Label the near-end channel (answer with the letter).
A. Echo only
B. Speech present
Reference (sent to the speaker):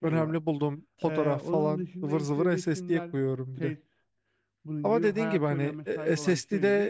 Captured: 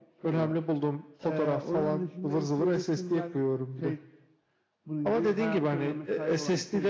A